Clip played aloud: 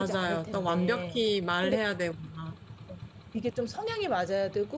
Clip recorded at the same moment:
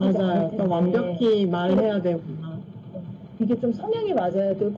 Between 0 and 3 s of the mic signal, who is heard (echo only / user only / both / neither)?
echo only